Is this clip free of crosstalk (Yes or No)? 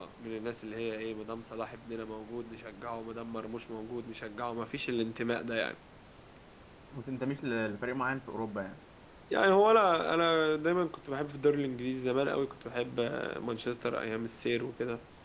Yes